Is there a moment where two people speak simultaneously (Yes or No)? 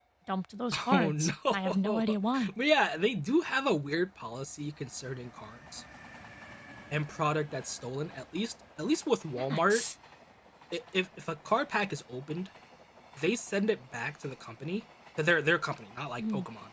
Yes